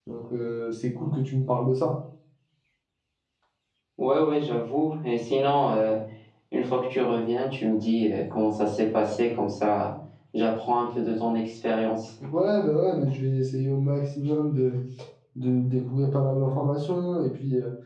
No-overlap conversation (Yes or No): Yes